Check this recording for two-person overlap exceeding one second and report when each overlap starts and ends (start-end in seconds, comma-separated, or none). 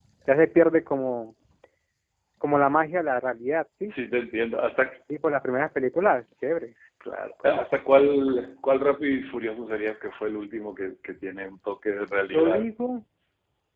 none